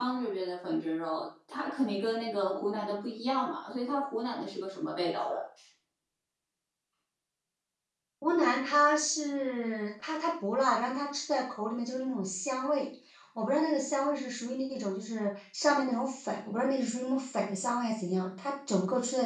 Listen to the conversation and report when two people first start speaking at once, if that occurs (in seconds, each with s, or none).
none